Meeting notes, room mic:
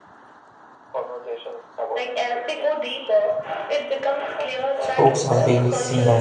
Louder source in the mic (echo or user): user